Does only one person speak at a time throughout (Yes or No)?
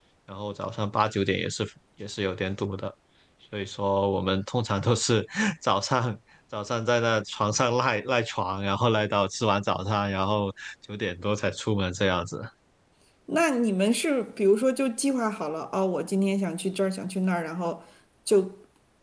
Yes